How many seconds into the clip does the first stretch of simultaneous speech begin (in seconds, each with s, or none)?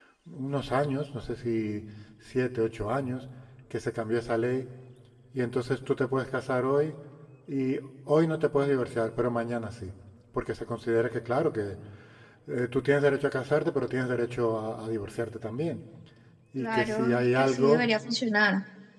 16.6 s